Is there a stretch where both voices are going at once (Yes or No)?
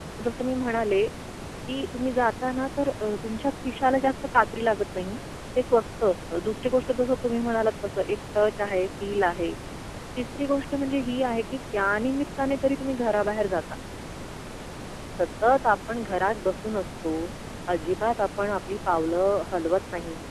No